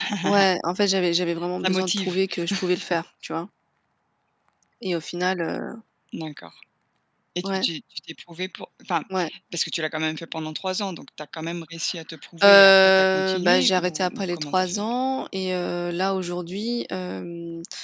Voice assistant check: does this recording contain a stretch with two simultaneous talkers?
Yes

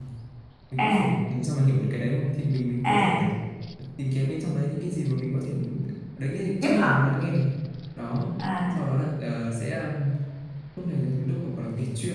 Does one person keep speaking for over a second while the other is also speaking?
No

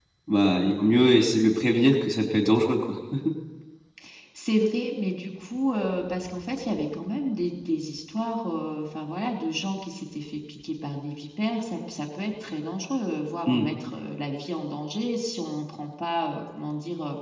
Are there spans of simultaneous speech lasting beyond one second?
No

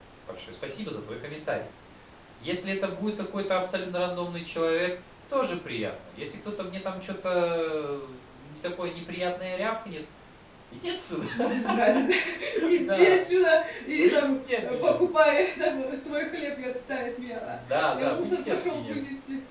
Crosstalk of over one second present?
Yes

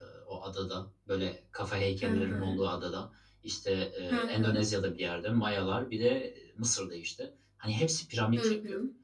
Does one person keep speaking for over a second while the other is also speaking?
No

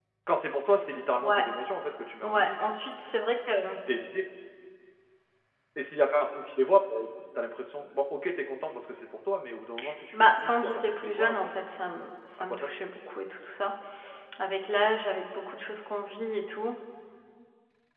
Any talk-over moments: Yes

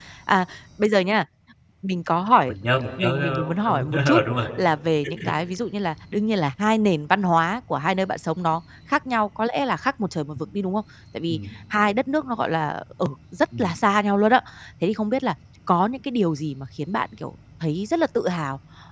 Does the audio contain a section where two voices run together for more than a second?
Yes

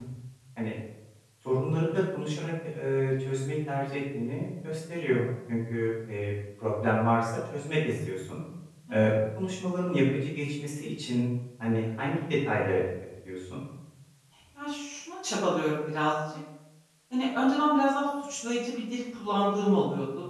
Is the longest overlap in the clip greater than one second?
No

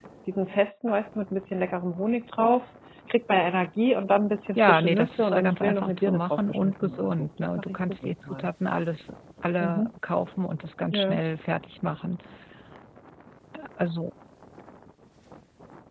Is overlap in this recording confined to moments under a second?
No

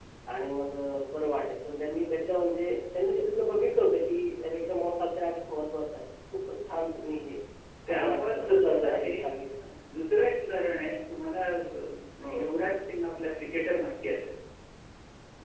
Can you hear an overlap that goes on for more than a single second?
Yes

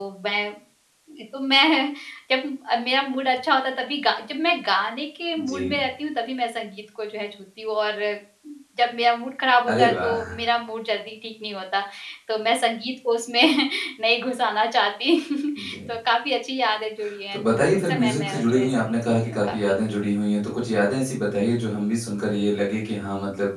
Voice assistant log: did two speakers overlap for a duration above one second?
Yes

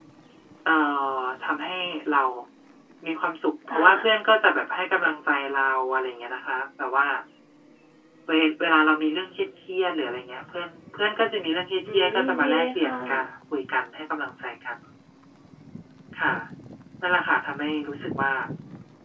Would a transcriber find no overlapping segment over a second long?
No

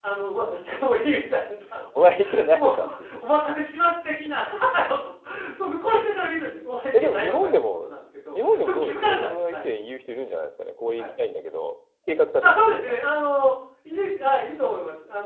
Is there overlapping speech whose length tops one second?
Yes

